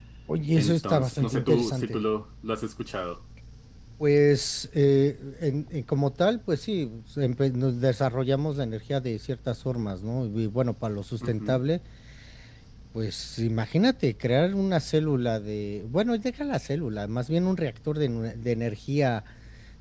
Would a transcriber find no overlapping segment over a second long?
No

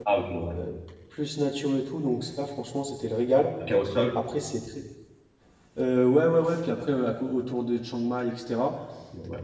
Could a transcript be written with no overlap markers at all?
Yes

